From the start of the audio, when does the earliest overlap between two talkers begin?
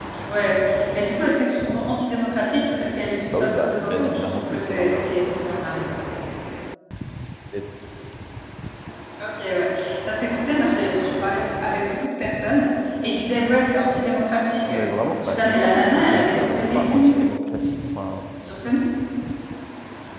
3 s

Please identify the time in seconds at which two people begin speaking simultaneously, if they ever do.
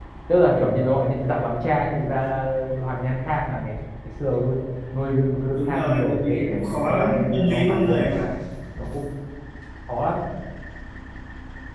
6 s

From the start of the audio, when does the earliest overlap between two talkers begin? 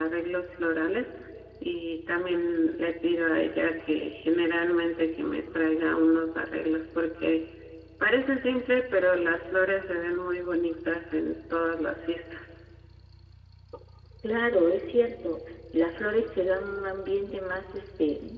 none

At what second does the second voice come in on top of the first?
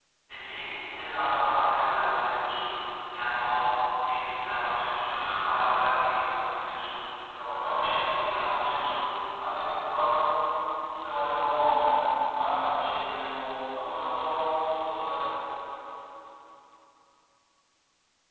8 s

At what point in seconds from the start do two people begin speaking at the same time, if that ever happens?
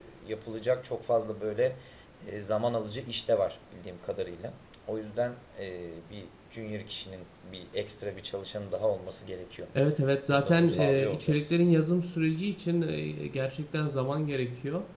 10 s

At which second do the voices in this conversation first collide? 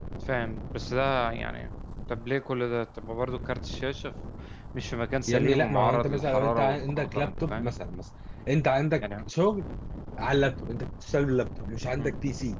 5 s

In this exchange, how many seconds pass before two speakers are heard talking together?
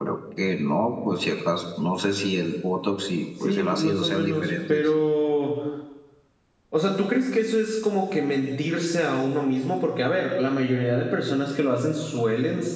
3 s

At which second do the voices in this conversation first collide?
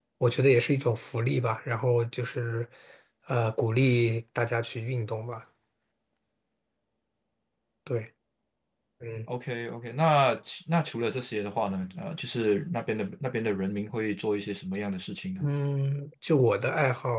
none

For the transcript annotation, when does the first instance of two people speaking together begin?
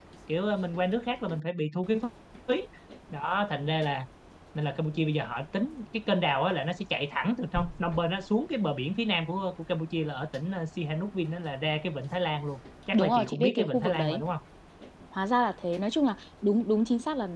13 s

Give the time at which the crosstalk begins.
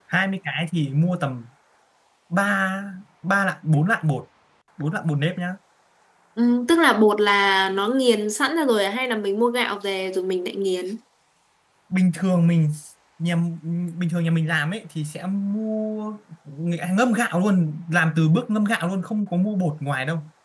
none

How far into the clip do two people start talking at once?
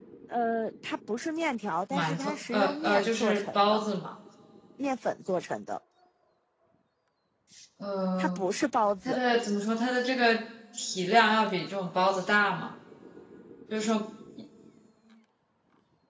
2 s

